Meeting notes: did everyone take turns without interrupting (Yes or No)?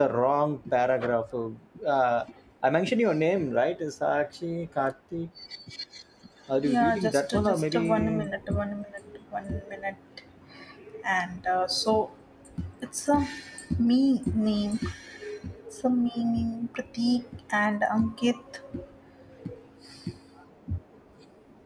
No